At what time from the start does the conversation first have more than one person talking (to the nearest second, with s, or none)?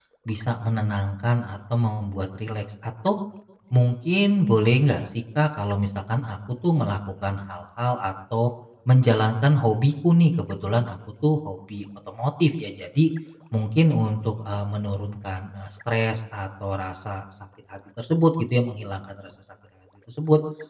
none